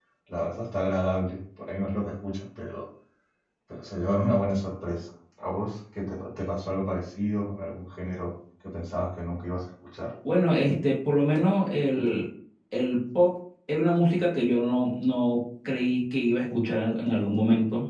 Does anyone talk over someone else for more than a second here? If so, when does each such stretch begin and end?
none

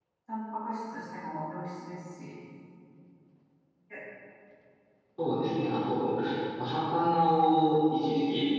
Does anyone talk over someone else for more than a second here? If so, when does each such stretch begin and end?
none

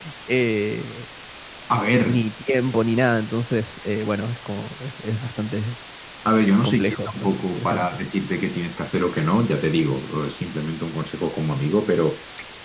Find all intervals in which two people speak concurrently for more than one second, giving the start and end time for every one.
6.6-8.0

